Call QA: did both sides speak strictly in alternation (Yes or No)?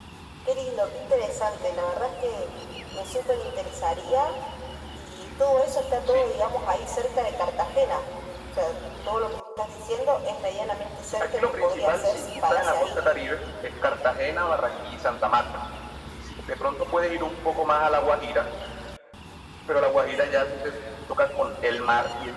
No